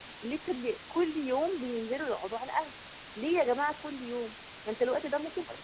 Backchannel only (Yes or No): Yes